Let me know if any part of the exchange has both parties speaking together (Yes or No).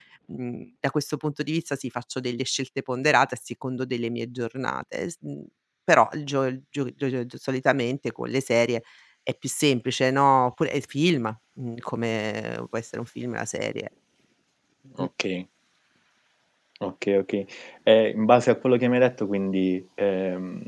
No